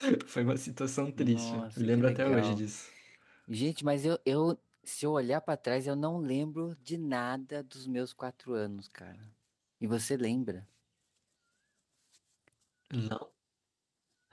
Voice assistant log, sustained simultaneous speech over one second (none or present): present